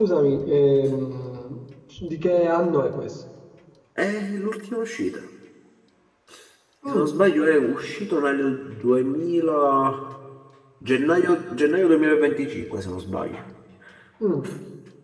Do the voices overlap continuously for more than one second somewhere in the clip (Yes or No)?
No